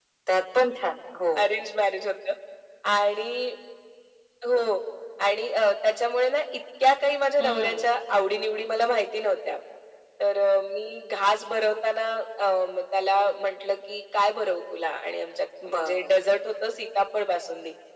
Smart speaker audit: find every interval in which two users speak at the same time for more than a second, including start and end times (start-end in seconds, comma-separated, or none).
none